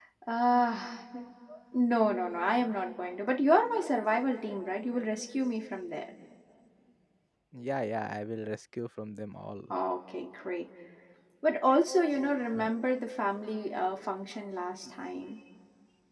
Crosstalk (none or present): none